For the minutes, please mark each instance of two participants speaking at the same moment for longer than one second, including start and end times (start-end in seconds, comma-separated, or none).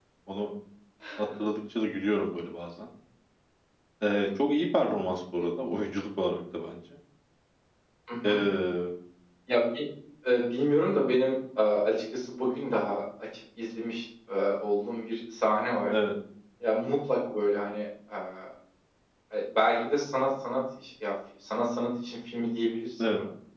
none